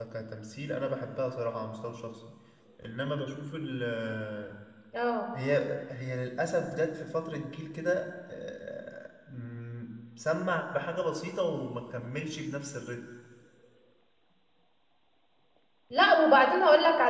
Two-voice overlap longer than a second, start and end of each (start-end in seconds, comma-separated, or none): none